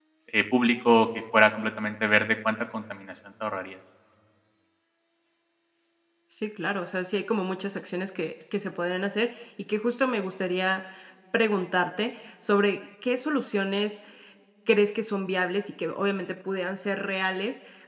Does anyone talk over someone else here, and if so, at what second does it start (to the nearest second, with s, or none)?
none